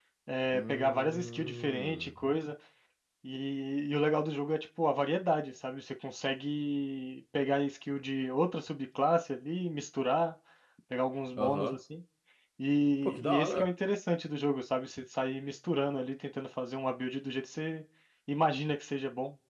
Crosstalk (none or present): present